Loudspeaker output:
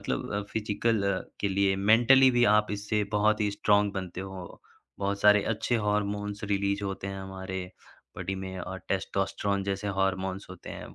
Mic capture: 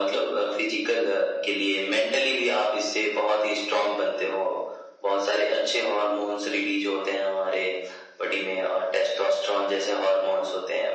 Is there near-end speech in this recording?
No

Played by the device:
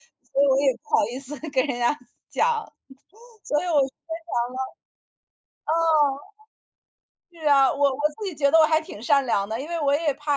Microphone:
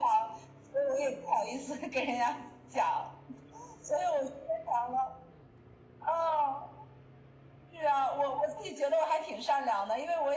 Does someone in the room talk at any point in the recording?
No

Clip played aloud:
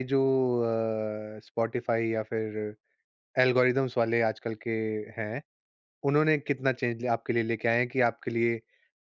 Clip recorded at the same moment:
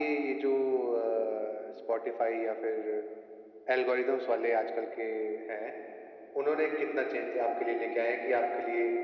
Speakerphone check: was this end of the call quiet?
Yes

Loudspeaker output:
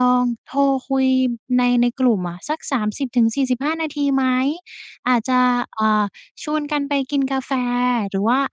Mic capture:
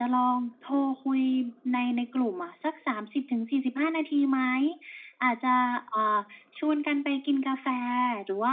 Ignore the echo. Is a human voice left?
No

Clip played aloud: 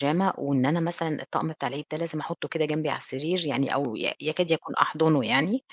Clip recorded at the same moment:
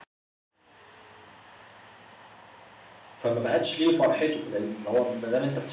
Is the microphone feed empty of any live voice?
No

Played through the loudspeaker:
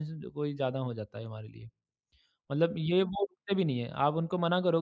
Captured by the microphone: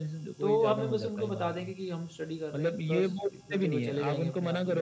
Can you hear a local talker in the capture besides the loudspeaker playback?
Yes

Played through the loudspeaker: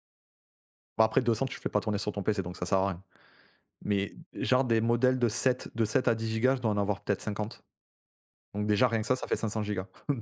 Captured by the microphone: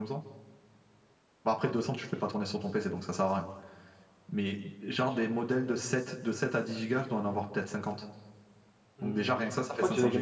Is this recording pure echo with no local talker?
No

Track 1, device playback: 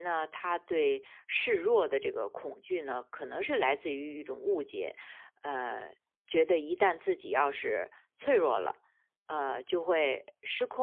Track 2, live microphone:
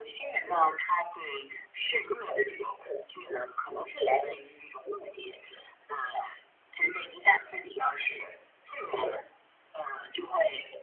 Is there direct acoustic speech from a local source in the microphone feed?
No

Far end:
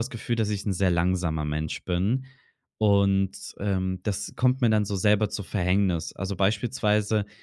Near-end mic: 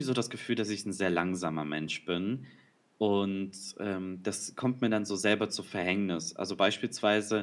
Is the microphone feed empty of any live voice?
Yes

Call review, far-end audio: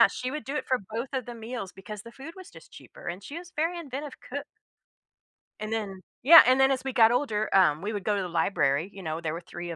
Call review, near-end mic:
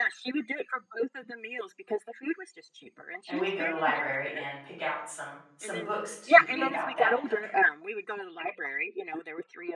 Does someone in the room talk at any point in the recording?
Yes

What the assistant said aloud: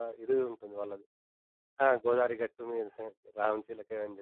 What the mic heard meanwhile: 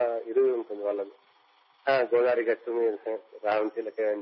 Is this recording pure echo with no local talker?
Yes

